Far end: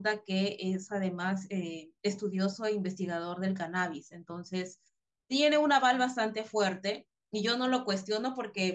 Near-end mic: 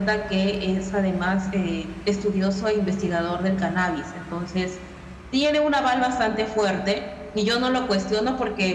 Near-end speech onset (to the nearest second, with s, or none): none